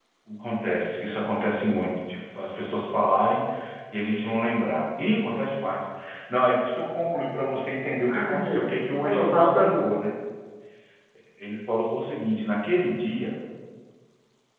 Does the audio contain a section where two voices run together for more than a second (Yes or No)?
Yes